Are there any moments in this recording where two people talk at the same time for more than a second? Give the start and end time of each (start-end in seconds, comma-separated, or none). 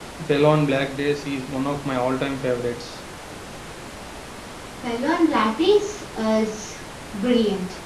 none